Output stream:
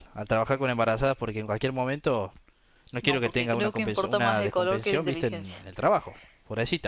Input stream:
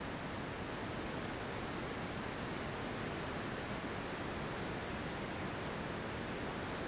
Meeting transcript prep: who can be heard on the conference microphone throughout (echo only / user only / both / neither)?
neither